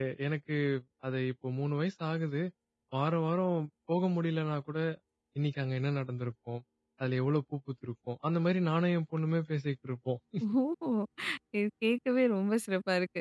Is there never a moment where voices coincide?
Yes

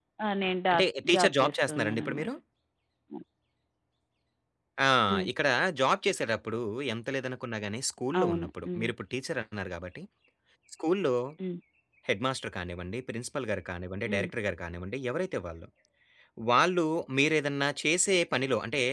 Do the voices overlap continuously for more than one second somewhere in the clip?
Yes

